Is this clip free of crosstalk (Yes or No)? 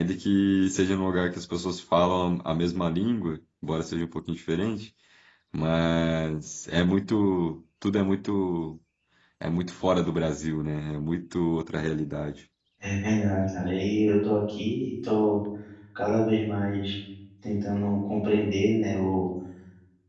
Yes